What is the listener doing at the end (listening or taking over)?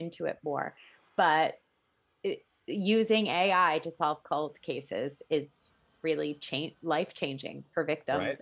taking over